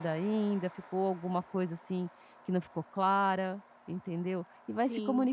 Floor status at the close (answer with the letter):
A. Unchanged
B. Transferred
A